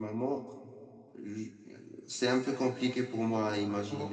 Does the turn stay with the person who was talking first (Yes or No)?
No